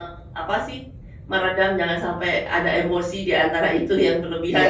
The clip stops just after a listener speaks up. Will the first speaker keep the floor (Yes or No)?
No